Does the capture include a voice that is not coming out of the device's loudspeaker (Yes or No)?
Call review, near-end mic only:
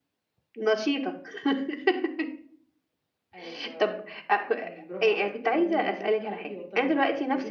Yes